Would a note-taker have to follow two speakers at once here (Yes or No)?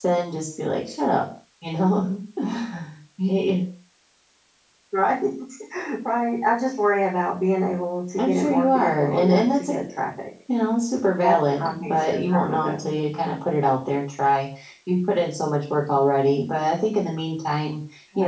Yes